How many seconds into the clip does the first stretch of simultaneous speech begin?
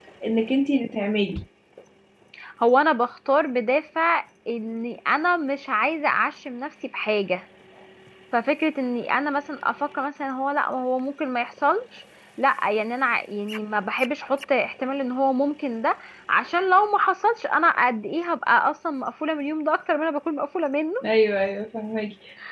none

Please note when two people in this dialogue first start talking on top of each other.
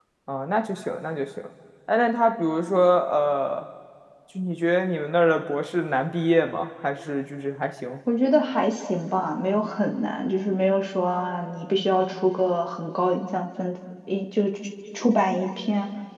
none

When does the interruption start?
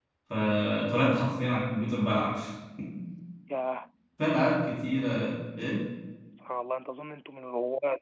none

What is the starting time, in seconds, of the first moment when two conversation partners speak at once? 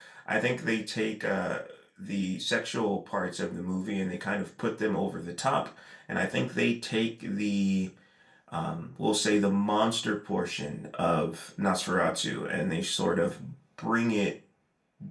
none

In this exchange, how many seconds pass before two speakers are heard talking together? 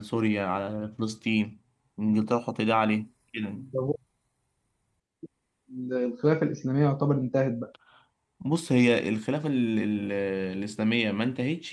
none

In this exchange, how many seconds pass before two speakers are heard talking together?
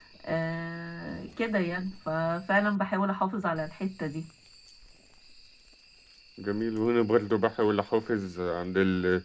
none

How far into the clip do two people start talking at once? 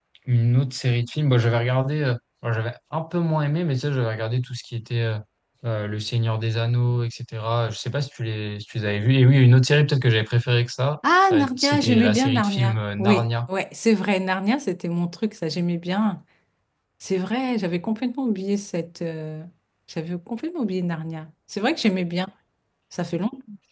11.0 s

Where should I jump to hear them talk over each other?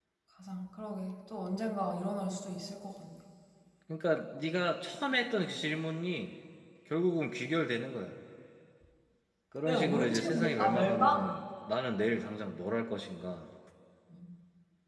9.7 s

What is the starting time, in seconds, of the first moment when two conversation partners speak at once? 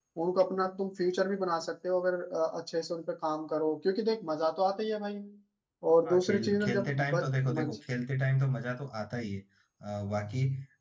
6.0 s

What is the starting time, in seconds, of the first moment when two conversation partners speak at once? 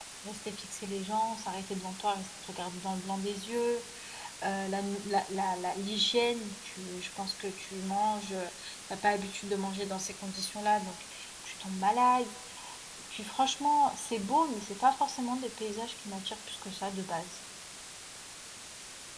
none

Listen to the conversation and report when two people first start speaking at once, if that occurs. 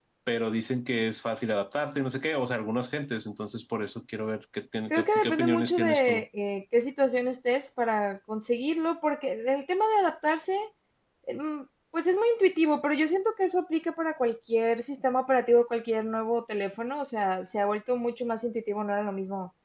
4.9 s

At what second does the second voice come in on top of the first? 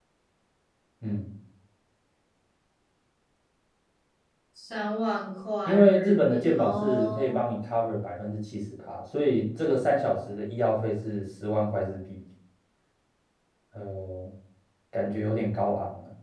5.7 s

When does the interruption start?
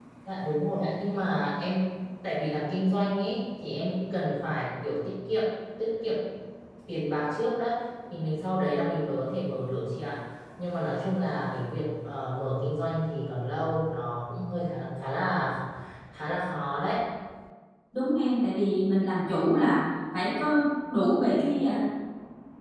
none

